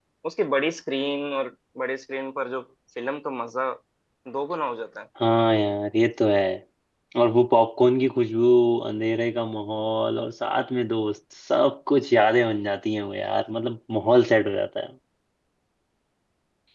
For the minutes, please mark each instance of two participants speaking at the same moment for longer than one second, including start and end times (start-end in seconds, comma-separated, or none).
none